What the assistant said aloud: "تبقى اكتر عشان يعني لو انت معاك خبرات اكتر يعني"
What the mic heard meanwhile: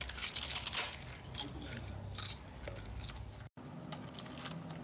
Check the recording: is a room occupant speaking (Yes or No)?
No